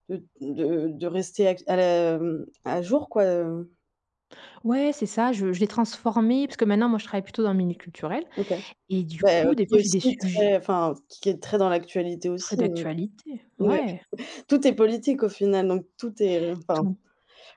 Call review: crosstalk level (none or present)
present